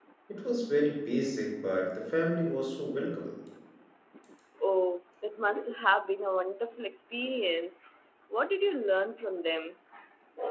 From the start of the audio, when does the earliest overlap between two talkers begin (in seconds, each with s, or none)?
none